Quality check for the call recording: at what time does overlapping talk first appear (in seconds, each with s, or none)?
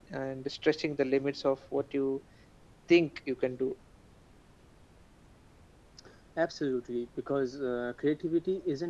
none